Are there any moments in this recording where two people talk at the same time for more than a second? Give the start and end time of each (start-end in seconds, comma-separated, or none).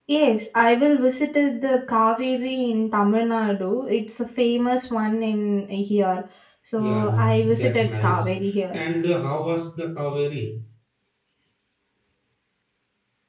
6.8-8.3